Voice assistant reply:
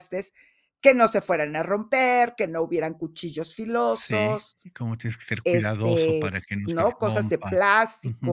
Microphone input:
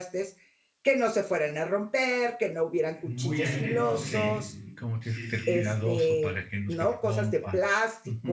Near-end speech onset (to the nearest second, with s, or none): 3 s